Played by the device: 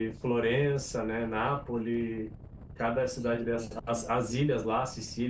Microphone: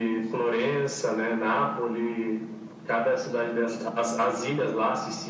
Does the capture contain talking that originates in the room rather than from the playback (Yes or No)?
No